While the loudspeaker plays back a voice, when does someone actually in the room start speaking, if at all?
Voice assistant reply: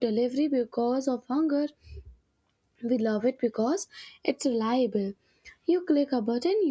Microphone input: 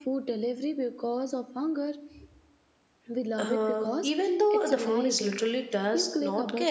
3.4 s

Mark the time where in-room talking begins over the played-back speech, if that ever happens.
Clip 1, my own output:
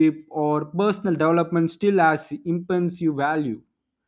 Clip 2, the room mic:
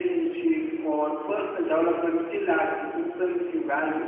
none

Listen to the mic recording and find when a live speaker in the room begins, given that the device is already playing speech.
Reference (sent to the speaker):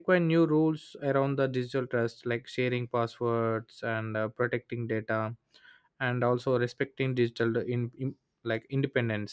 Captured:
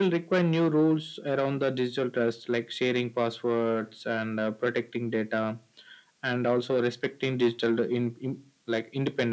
none

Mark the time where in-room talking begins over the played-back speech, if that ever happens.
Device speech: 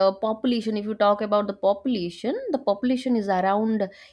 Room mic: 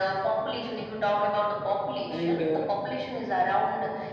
2.0 s

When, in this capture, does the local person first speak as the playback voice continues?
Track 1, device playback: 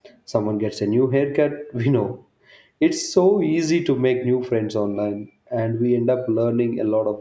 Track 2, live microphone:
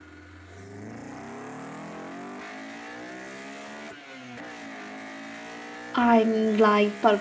6.0 s

